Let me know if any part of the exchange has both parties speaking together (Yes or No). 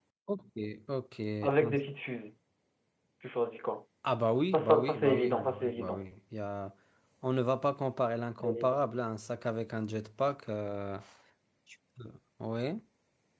Yes